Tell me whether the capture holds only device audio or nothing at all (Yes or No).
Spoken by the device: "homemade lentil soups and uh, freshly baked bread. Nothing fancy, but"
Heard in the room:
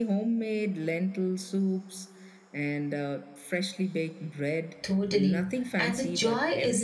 No